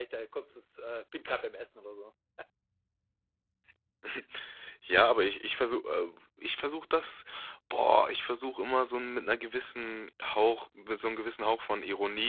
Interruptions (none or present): none